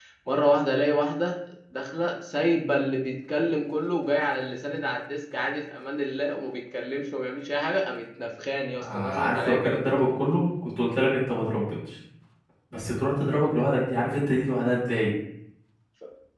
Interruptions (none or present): present